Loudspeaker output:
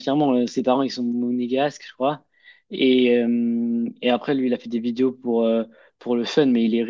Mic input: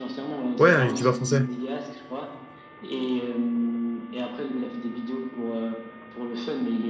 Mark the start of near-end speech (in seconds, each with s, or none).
0.6 s